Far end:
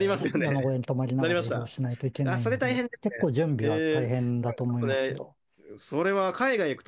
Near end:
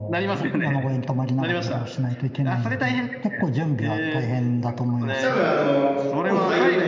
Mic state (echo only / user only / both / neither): both